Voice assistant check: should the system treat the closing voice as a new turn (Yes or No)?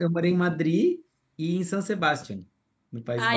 Yes